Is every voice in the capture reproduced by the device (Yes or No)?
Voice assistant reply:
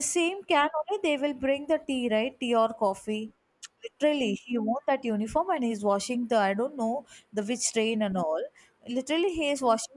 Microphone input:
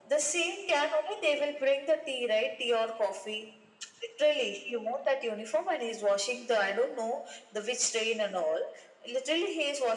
Yes